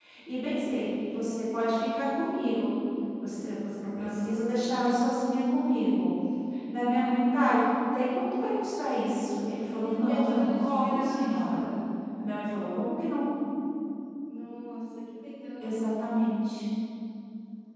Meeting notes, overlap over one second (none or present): present